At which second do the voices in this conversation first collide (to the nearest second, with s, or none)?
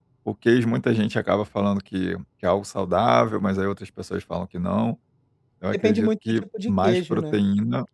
6 s